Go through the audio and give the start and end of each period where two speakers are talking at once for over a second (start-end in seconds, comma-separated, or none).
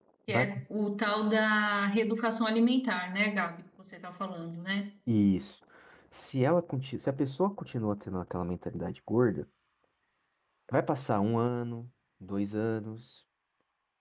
none